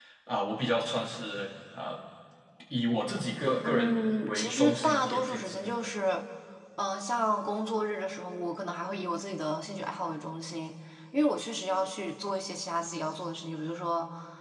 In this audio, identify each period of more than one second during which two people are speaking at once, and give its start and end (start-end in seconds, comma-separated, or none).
3.6-5.7